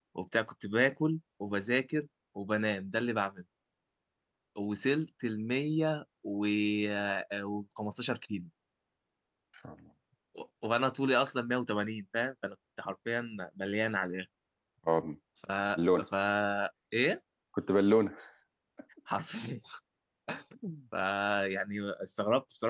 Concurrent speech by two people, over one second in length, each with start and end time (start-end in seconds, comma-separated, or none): none